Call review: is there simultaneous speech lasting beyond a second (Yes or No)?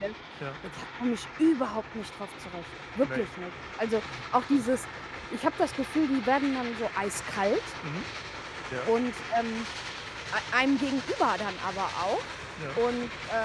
No